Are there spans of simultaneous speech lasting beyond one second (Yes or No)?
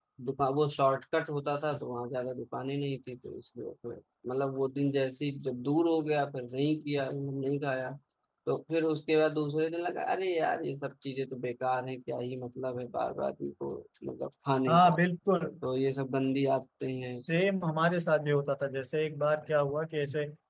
No